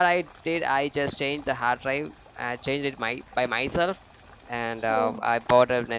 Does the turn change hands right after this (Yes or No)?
No